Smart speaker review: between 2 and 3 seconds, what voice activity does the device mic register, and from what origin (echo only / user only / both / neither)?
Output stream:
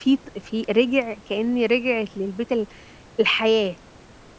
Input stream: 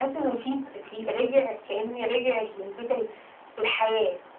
echo only